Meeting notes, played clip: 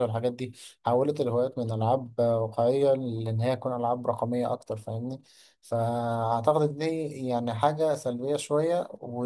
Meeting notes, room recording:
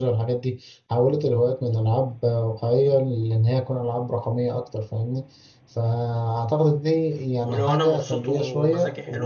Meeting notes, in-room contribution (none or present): present